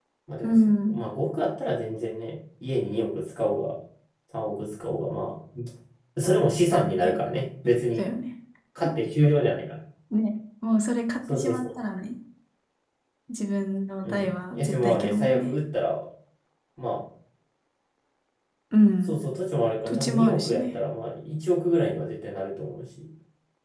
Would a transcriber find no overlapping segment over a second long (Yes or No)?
No